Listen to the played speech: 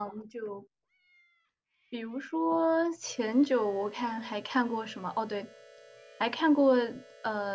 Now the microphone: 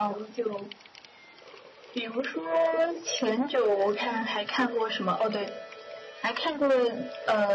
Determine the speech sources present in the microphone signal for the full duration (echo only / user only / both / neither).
echo only